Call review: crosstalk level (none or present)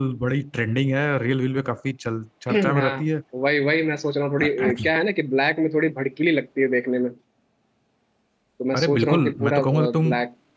present